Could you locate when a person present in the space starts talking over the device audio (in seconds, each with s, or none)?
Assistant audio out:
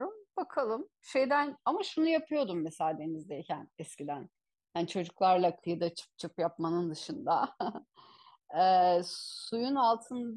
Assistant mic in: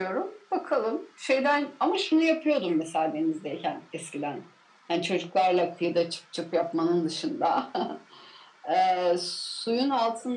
none